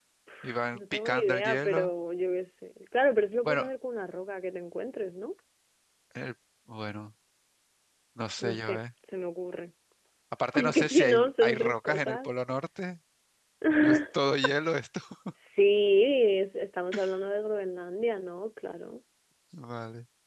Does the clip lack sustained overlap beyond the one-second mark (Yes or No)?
No